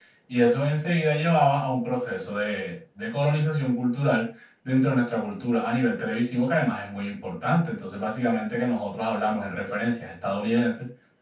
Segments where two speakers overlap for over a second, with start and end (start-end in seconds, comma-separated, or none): none